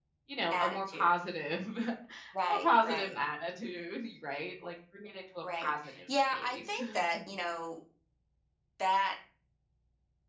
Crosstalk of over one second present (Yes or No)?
Yes